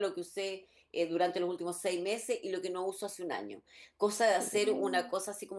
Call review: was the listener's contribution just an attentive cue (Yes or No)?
Yes